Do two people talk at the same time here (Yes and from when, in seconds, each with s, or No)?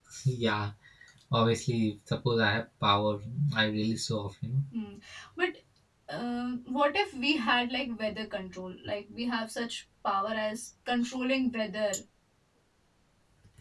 No